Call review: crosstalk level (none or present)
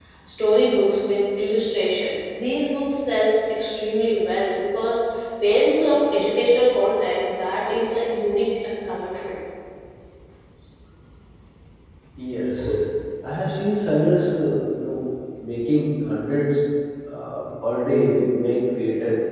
none